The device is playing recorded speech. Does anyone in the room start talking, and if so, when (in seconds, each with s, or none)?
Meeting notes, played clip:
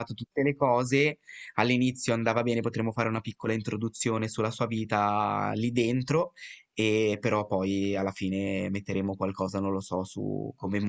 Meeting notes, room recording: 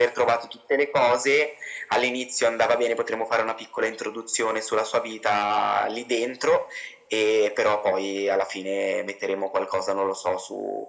none